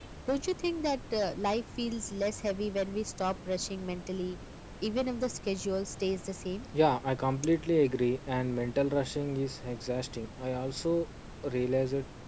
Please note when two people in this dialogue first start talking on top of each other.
none

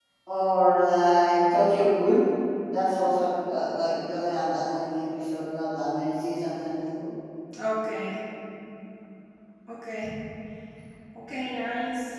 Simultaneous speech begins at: none

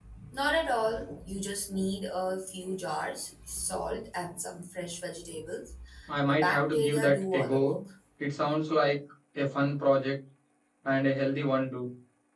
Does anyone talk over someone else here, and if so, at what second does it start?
6.3 s

